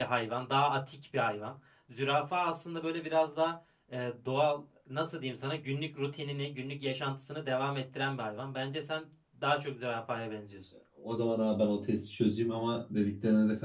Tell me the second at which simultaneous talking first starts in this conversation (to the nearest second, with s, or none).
none